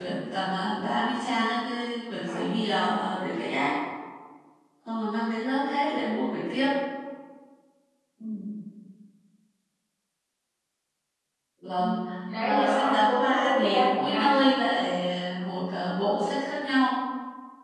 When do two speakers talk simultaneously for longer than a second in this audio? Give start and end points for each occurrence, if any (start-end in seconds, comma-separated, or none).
12.4-14.3